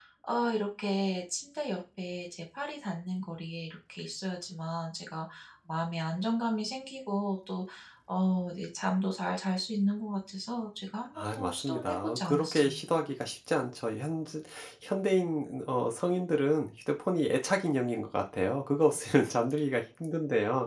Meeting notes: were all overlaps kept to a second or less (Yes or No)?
No